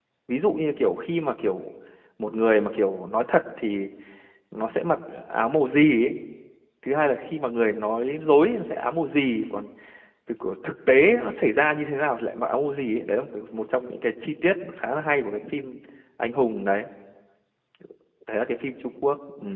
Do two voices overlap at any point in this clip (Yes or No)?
No